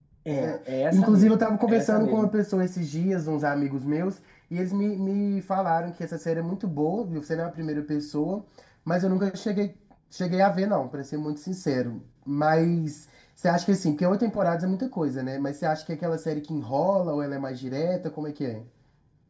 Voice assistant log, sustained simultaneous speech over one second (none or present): present